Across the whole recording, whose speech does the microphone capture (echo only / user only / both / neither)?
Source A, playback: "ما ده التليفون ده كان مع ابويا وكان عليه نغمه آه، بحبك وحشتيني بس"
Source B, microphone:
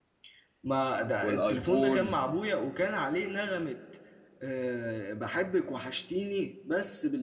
both